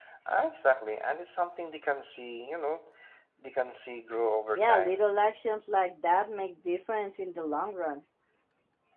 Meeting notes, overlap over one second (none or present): none